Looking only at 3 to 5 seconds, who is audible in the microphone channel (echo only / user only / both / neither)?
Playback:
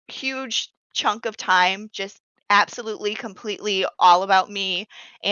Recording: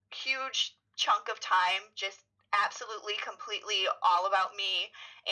echo only